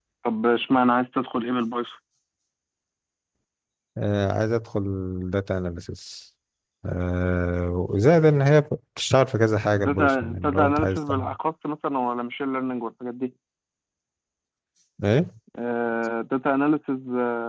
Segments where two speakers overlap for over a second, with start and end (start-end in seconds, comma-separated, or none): 9.8-11.3